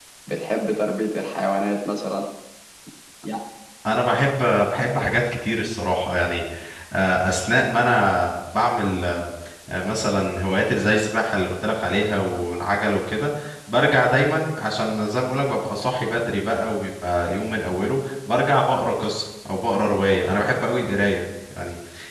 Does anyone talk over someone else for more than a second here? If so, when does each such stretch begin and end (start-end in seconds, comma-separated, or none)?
none